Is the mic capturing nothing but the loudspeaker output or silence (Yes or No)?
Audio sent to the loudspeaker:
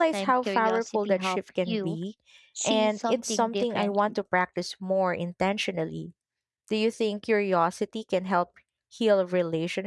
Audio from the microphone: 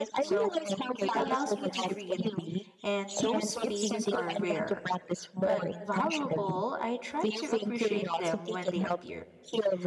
No